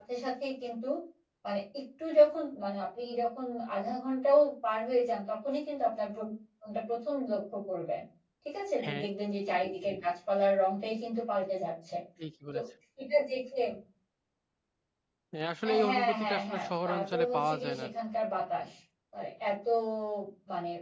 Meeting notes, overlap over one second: present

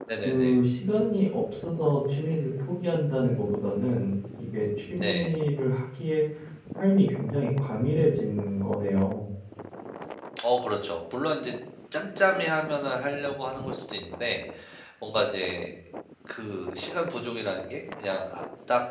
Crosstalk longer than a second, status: none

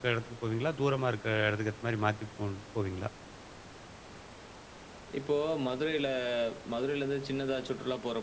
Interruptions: none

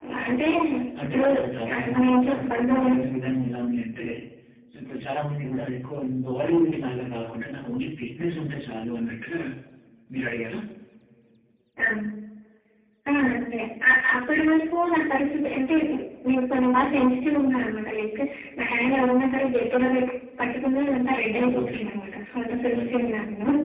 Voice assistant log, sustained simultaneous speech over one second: present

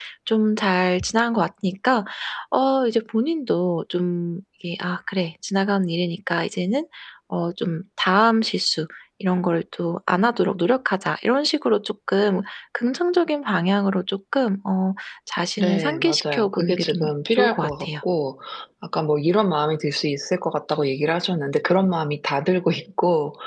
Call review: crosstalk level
present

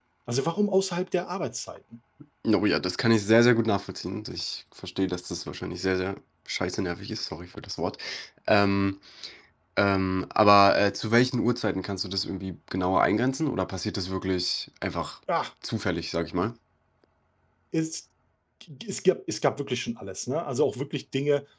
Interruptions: none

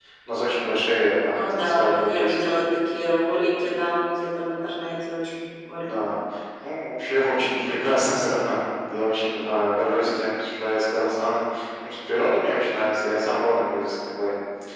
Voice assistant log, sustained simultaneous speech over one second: present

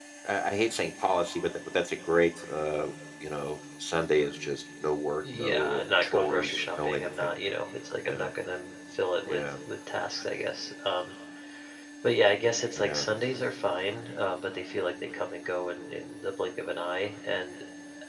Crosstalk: present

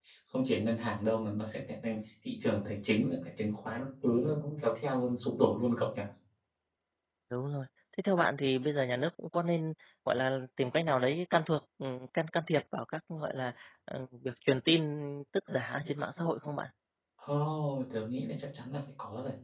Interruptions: none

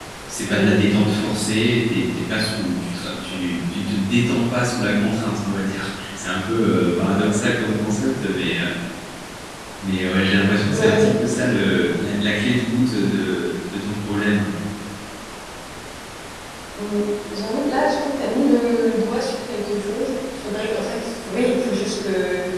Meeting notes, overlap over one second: none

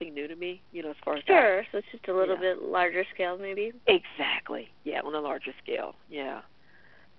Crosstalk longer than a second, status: none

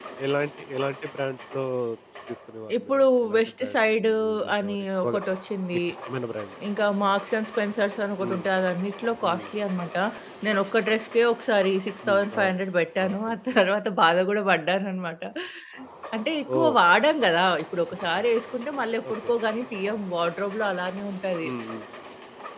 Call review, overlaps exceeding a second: present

